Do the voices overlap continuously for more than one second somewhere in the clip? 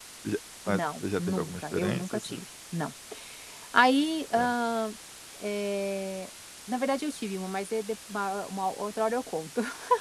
Yes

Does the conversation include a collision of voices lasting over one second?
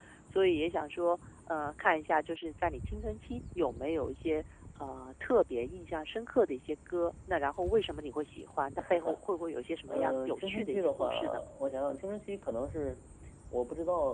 Yes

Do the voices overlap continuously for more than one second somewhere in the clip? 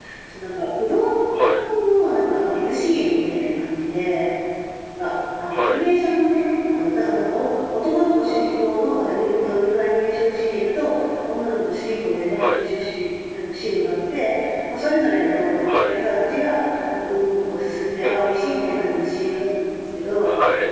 No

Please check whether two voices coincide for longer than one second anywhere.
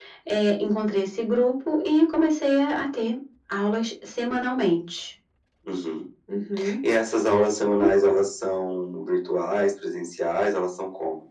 No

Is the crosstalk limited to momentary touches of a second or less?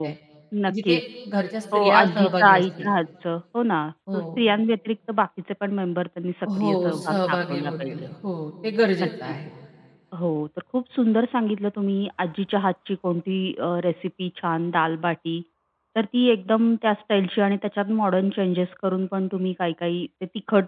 No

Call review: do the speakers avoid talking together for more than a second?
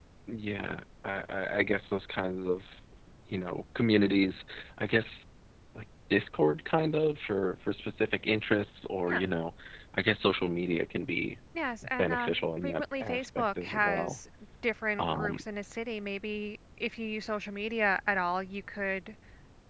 No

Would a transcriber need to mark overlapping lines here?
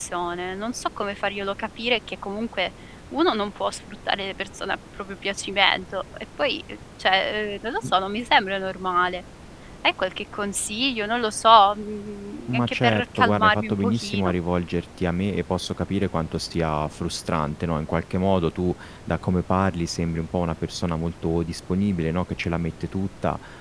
Yes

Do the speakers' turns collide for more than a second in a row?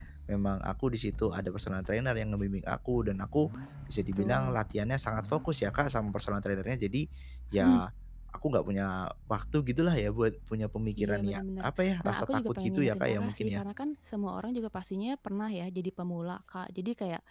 Yes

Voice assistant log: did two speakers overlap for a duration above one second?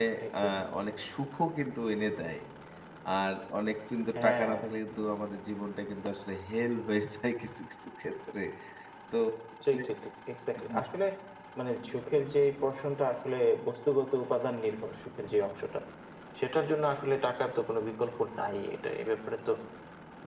No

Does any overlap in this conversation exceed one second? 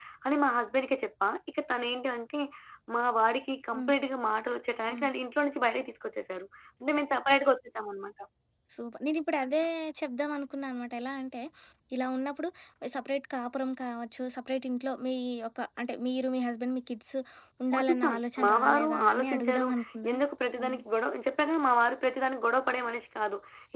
Yes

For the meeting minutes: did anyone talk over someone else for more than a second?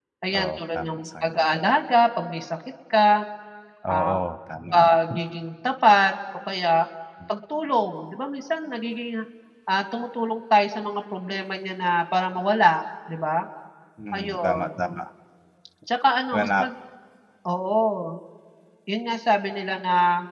Yes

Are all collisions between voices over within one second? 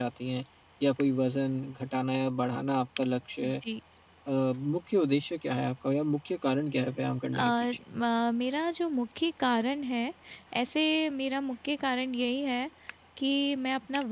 Yes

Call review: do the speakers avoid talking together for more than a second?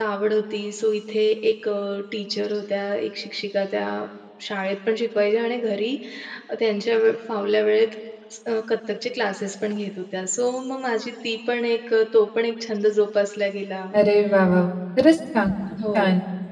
Yes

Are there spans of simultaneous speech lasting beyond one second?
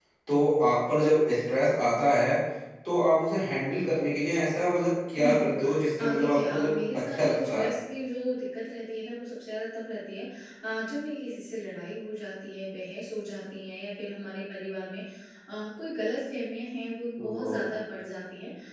Yes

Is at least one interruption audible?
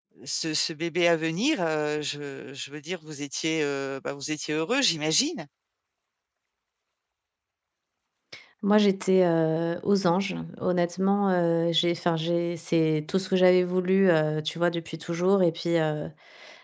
No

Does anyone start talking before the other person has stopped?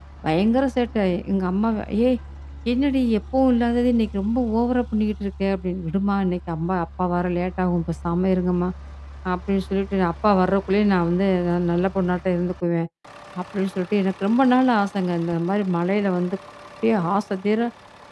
No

